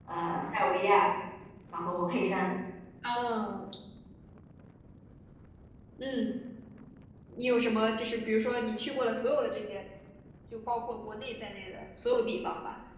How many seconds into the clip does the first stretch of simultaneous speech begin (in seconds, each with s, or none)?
none